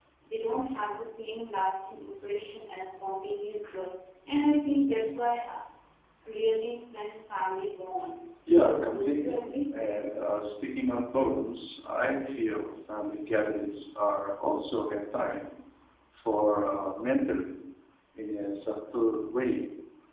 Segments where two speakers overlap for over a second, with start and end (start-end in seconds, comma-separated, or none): 8.5-9.7